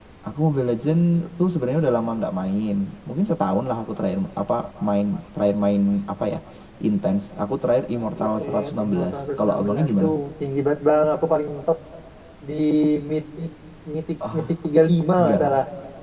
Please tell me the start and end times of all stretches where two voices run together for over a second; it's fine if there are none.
8.2-10.1

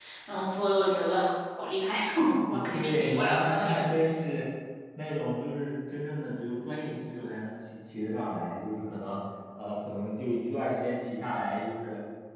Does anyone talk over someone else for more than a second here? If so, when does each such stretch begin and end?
2.5-3.9

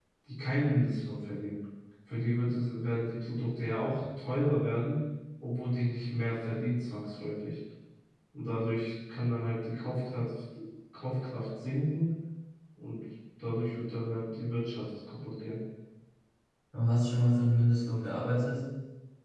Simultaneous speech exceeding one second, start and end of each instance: none

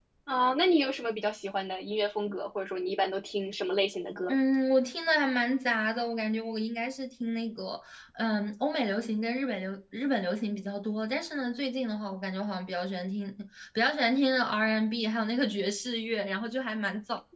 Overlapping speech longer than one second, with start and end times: none

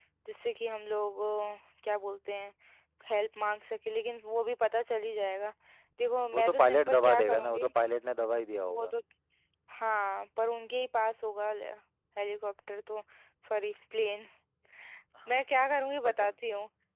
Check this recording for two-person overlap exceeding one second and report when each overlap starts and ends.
6.3-7.7

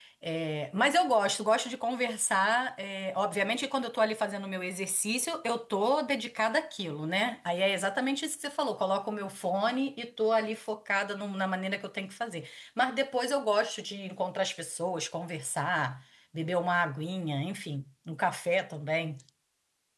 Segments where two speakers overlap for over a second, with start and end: none

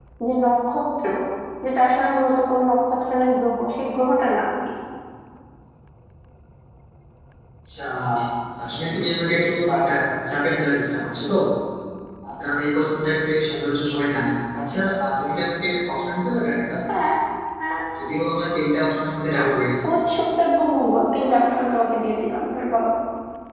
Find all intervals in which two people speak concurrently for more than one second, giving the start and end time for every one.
none

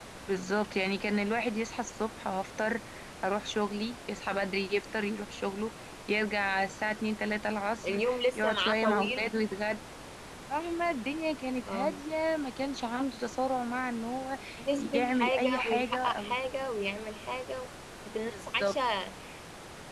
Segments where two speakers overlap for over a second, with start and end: 7.8-9.2, 14.8-16.4

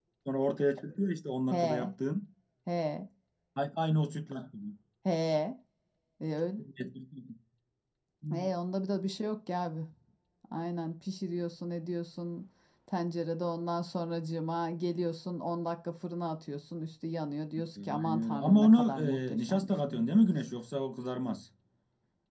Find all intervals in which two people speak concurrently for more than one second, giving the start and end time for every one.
17.8-19.9

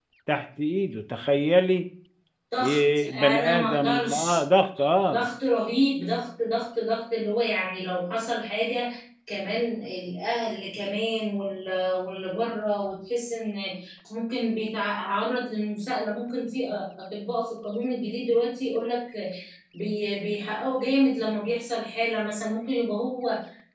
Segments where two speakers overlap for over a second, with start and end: 2.6-4.4

